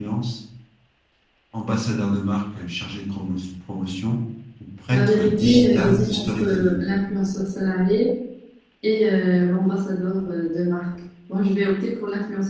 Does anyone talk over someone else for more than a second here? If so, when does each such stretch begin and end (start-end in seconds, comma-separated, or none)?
4.9-6.9